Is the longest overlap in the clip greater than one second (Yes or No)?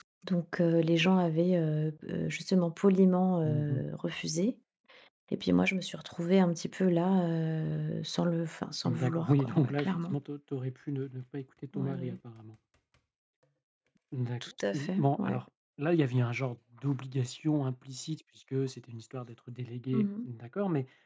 Yes